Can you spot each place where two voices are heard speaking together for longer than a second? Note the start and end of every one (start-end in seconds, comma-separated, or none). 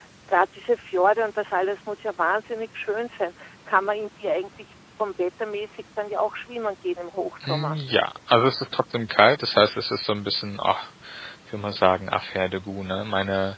none